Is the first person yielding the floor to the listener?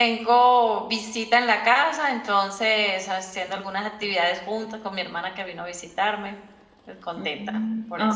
Yes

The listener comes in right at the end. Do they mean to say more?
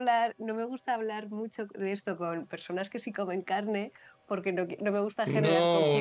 Yes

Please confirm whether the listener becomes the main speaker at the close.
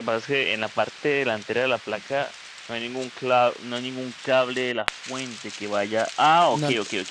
No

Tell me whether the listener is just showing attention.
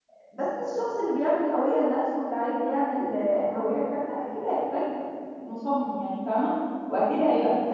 Yes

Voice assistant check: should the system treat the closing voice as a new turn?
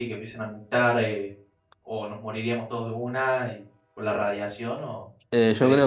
Yes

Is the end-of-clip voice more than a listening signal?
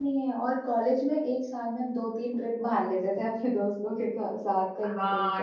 Yes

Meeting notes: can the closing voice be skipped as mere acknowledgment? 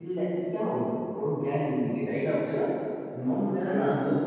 Yes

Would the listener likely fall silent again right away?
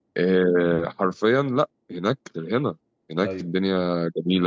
Yes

